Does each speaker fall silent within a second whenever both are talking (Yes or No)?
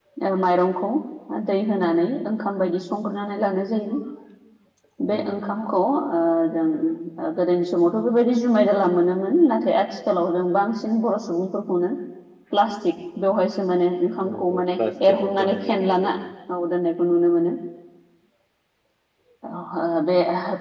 No